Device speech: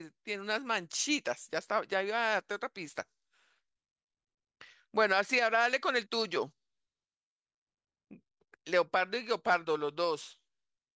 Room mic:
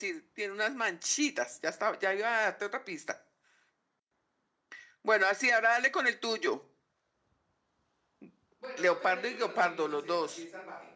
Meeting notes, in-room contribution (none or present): present